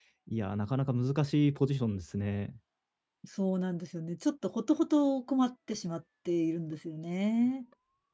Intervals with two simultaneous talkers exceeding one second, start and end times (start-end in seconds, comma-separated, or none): none